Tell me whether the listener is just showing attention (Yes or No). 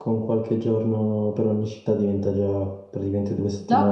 No